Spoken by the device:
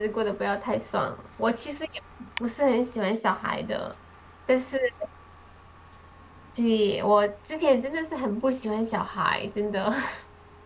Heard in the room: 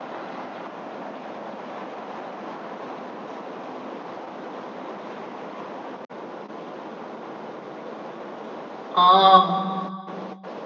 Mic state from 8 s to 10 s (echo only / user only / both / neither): user only